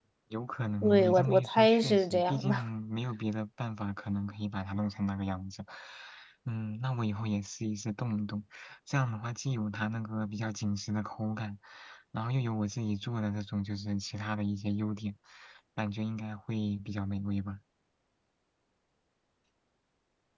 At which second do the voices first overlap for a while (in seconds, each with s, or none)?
0.8 s